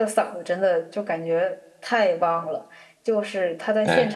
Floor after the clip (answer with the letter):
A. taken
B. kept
B